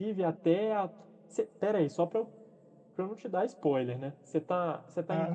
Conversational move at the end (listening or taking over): taking over